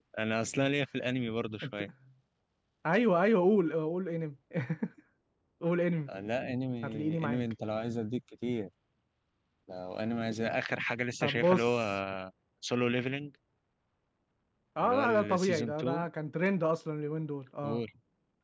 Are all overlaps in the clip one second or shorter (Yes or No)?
No